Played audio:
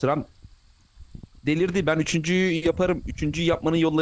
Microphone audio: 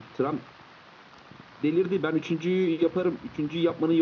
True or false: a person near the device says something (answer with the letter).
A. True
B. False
B